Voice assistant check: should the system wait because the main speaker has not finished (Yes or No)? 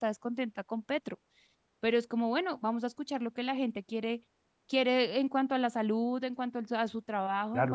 No